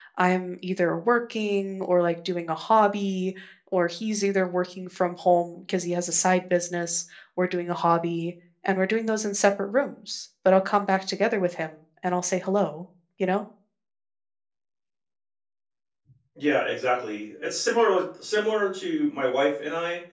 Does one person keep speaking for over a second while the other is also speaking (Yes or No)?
No